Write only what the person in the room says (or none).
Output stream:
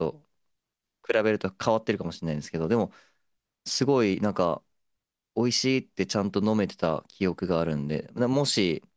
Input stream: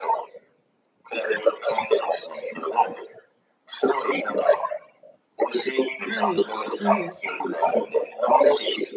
はい、はい。